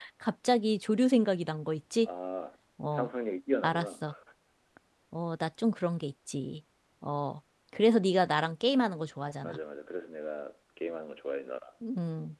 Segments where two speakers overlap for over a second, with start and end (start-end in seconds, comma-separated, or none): none